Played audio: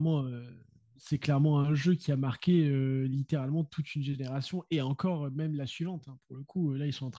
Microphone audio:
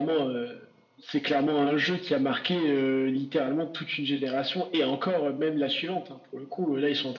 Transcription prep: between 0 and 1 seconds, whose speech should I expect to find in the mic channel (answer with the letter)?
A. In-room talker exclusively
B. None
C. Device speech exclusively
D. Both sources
C